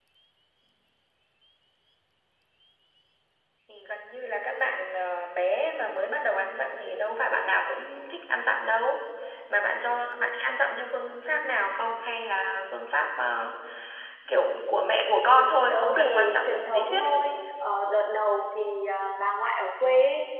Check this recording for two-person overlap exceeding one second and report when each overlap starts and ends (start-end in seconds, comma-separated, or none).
15.7-17.0